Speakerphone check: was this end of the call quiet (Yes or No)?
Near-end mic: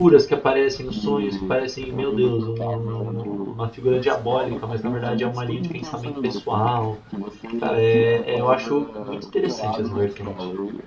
No